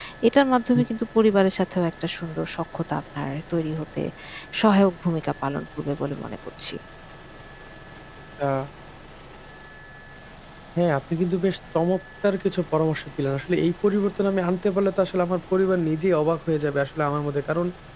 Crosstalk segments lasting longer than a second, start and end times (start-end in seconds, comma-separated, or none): none